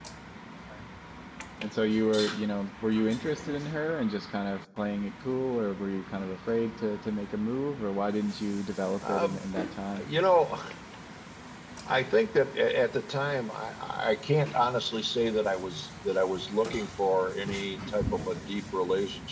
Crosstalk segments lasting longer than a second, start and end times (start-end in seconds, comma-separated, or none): none